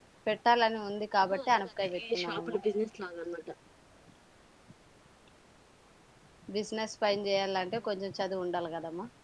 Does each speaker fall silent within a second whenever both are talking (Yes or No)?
No